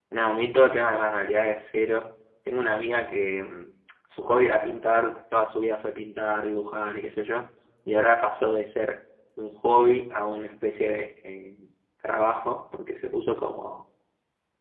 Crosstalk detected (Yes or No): No